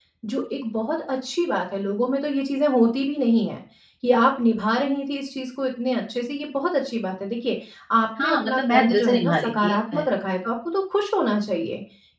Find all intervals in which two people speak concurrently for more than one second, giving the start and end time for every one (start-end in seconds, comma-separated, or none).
8.2-10.0